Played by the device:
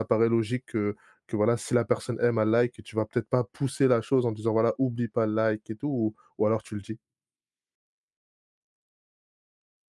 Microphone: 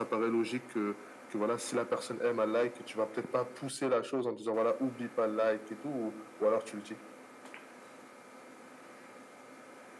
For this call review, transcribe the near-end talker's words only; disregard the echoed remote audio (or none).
none